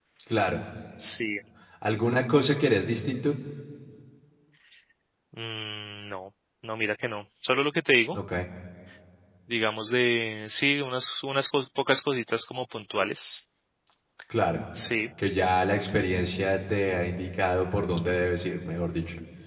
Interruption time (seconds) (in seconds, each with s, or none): none